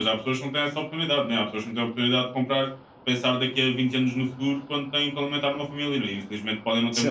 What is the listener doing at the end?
taking over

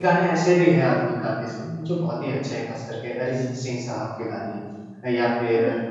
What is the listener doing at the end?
listening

